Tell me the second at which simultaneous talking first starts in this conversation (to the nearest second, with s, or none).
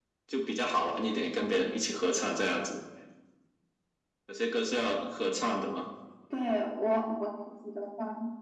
none